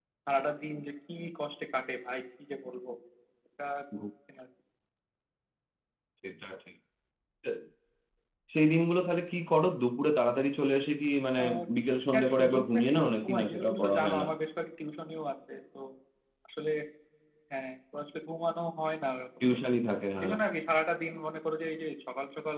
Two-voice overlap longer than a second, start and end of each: 12.1-14.2

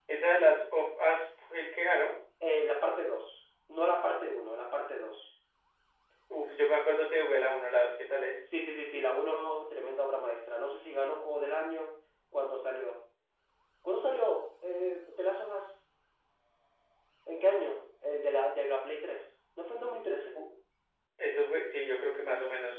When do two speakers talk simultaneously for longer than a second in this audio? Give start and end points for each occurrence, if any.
none

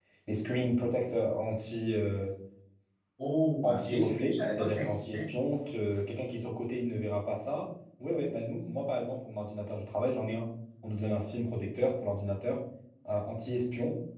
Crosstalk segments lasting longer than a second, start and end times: 3.6-5.3

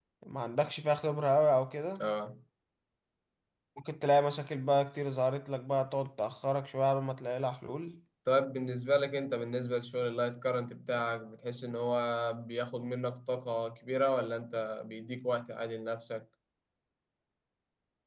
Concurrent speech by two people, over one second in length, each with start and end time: none

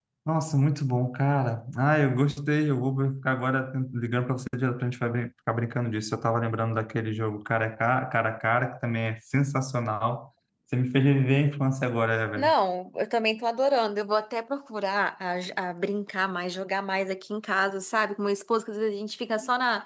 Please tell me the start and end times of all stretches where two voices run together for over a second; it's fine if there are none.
none

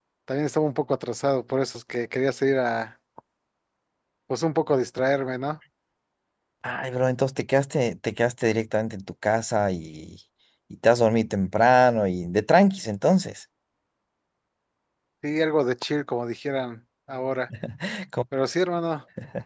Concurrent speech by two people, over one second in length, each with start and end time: none

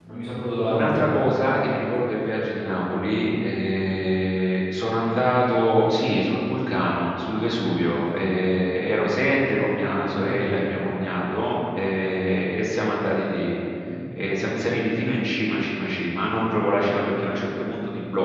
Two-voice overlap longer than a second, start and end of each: none

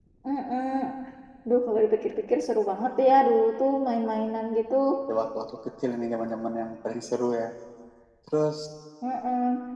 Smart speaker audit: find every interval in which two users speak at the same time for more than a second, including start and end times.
none

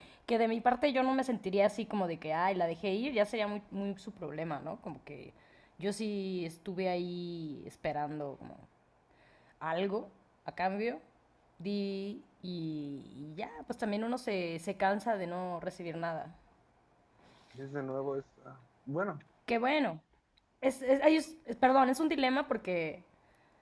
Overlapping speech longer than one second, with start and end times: none

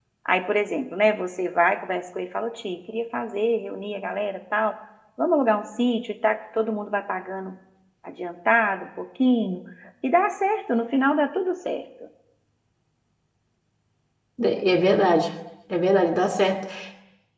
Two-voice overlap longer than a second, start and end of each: none

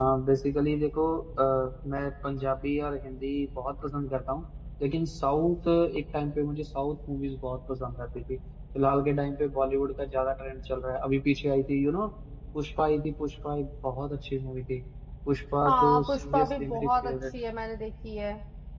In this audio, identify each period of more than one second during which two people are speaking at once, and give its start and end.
15.7-17.1

